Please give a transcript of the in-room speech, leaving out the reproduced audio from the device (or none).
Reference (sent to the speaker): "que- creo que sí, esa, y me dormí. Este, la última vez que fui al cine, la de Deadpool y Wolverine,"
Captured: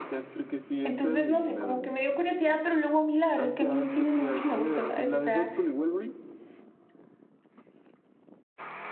Entonces, no sé, como que me dio curiosidad, pero luego a mí la verdad es que a mí el cine no mucho me gusta, ¿sabes? O sea,